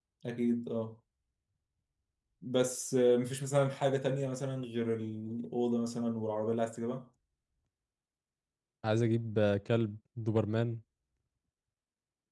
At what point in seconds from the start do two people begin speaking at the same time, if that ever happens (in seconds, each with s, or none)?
none